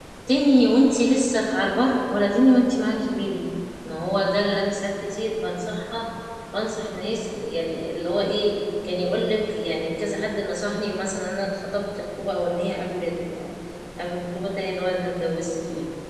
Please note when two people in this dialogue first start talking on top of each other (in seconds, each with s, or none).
none